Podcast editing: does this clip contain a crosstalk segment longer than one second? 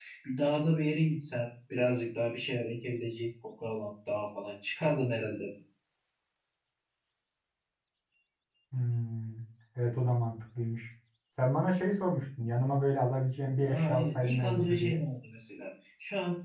Yes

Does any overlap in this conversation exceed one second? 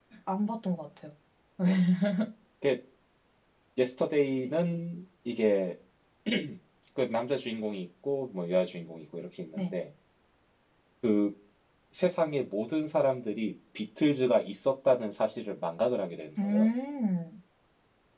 No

